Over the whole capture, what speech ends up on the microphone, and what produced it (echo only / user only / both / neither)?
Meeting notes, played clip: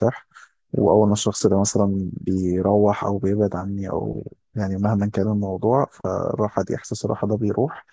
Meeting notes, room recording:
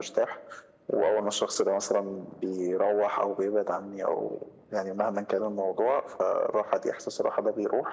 echo only